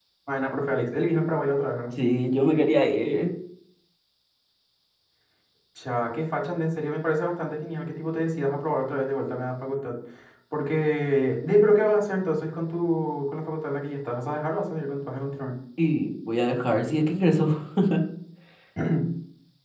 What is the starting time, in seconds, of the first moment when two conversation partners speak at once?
none

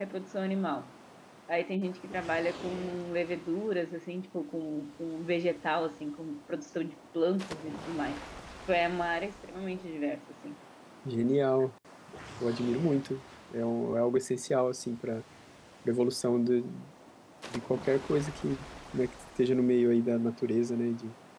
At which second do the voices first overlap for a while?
none

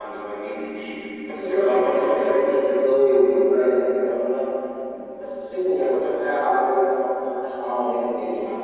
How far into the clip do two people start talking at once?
1 s

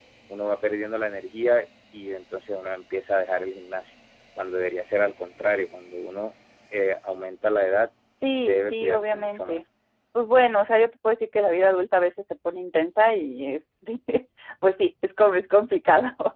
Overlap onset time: 8 s

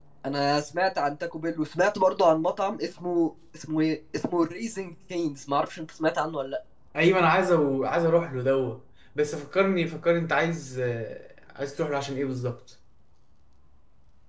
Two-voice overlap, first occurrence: none

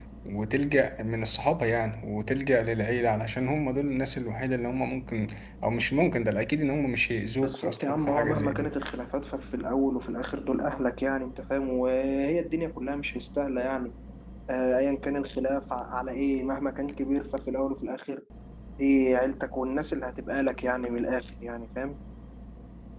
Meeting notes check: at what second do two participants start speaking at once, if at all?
7 s

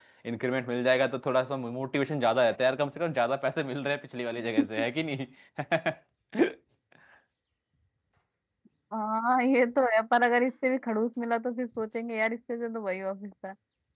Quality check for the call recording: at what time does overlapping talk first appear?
none

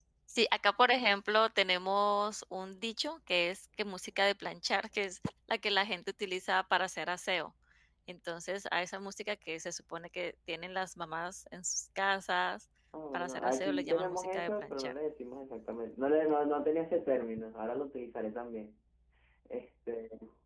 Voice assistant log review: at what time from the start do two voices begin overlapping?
13 s

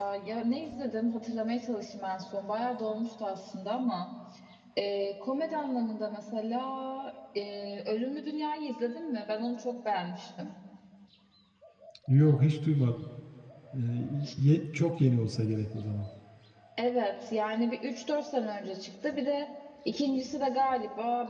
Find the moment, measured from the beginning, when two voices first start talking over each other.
none

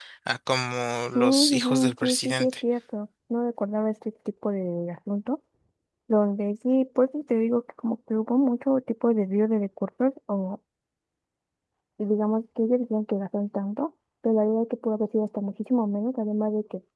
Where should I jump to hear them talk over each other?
1 s

